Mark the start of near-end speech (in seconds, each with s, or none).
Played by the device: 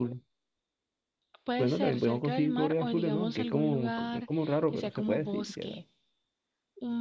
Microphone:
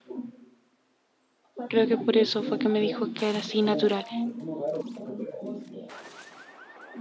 1.7 s